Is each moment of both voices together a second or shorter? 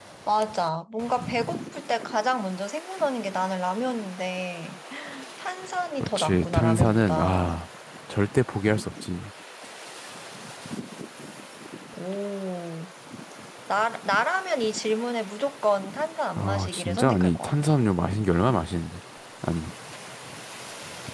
No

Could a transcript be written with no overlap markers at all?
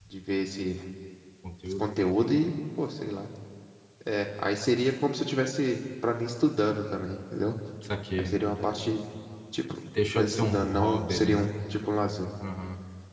No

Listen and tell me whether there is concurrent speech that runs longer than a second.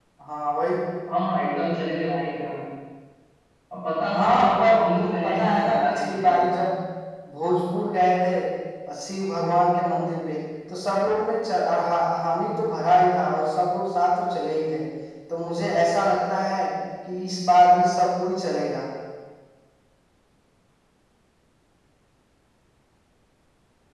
Yes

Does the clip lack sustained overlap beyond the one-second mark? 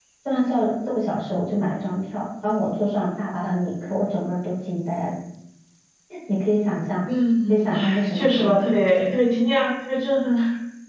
No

